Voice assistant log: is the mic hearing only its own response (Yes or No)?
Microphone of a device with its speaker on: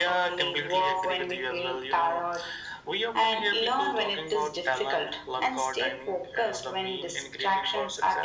Yes